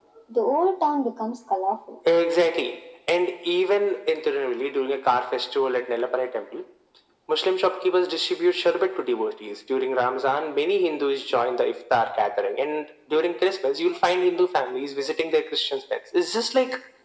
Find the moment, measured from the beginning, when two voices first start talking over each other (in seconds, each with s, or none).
none